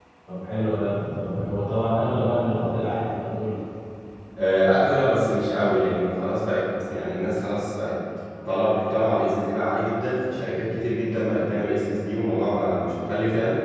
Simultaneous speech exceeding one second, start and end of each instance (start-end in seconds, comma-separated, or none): none